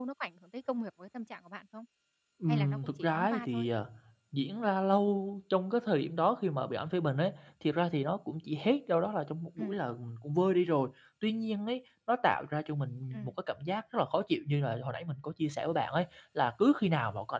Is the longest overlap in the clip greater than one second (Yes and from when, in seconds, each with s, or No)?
Yes, from 2.5 s